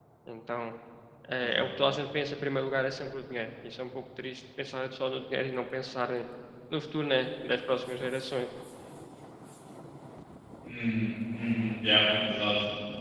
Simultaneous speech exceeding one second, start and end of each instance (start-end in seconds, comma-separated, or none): none